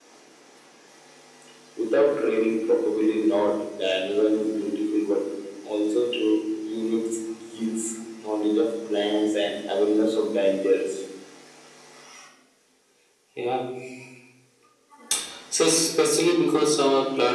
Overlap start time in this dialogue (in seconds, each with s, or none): none